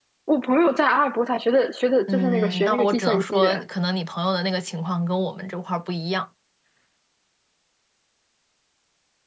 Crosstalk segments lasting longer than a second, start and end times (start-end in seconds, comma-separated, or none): 2.1-3.4